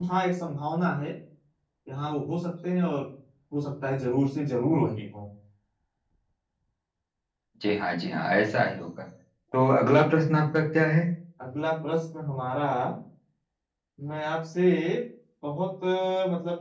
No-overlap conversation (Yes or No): Yes